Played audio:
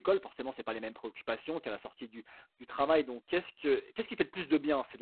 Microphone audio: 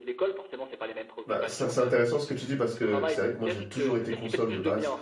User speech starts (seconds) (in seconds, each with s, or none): 1.3 s